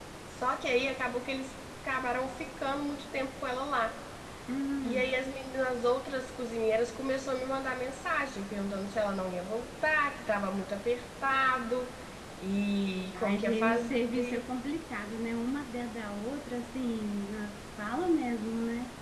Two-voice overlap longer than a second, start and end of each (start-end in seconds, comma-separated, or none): 13.2-14.4